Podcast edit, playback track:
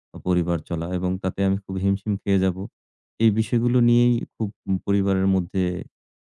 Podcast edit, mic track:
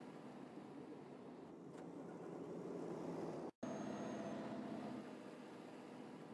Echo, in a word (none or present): none